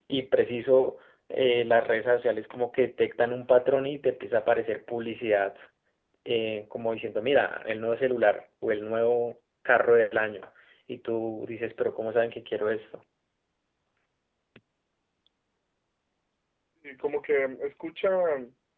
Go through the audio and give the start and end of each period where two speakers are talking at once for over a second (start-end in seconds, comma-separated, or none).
none